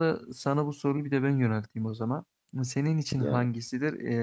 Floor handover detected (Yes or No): No